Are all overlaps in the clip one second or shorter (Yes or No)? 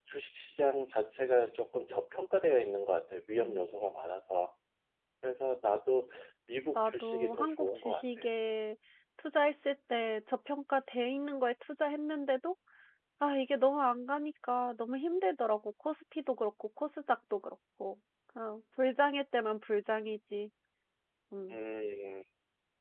No